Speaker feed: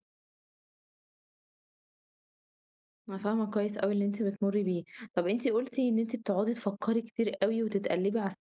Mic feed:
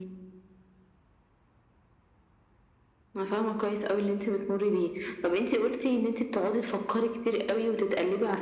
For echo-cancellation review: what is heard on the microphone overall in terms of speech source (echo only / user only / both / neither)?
echo only